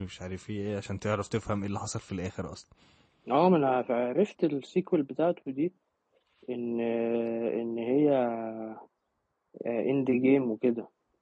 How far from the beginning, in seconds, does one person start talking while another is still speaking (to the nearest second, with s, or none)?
none